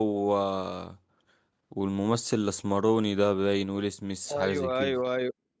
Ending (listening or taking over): taking over